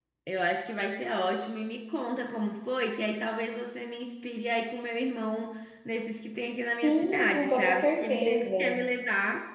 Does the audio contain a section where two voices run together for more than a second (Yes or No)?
Yes